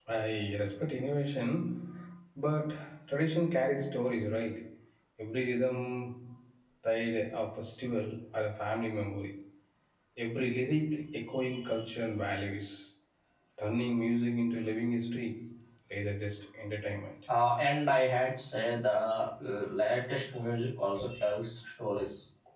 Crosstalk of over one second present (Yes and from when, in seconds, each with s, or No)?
No